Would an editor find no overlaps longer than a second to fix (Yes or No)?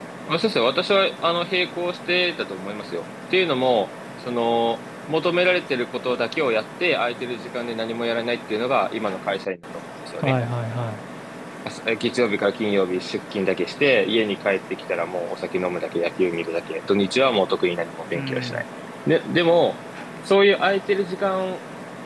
Yes